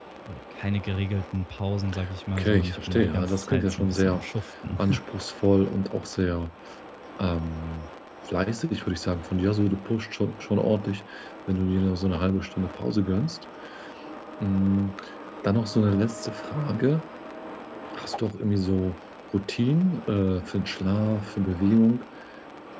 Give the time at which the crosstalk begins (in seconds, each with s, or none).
2.4 s